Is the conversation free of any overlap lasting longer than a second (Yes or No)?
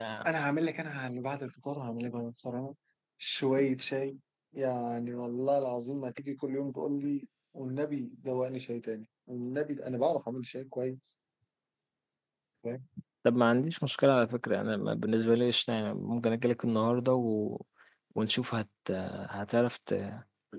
Yes